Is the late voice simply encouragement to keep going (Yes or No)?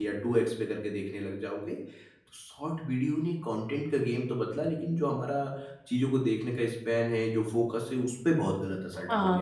No